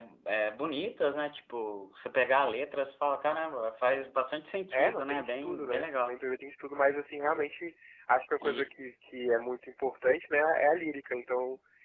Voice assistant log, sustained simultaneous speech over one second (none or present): present